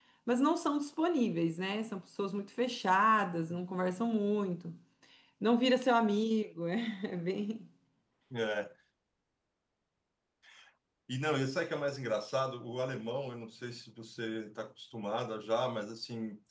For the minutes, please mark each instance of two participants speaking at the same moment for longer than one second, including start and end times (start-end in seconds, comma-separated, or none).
none